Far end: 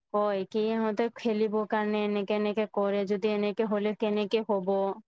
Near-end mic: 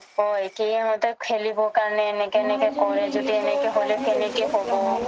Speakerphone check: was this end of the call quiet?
No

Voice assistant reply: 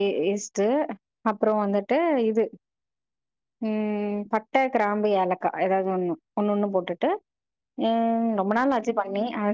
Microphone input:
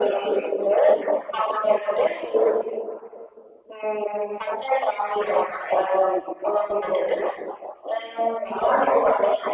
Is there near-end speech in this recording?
No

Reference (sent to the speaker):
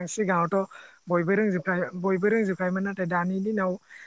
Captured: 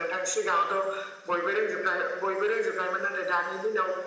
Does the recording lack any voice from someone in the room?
Yes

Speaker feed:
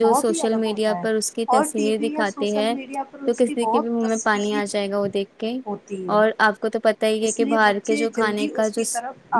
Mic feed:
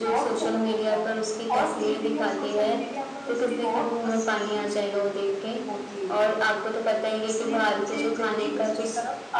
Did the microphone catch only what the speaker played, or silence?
Yes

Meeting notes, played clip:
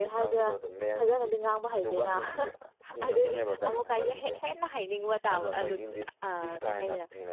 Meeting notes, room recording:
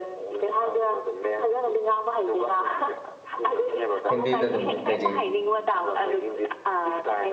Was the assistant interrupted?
Yes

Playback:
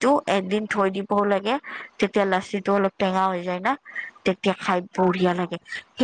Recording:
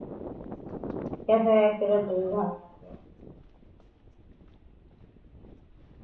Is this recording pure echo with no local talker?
No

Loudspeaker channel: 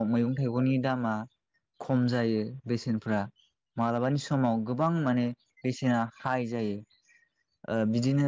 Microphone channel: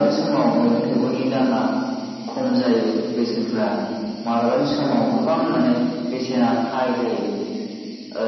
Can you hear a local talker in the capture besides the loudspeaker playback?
No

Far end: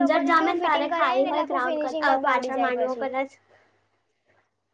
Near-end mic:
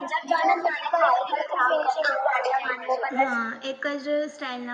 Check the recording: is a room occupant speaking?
Yes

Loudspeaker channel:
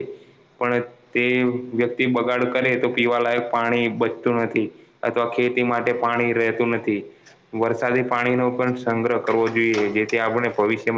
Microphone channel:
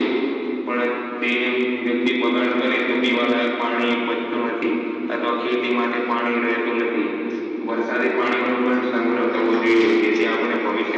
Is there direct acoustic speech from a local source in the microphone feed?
No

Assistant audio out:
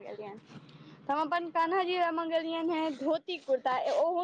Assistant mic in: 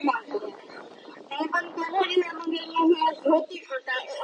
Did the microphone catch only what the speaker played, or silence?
Yes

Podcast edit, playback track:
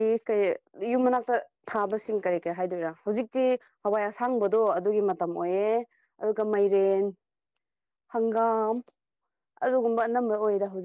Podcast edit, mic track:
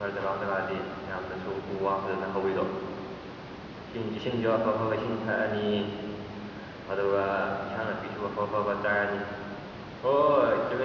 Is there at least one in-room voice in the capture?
Yes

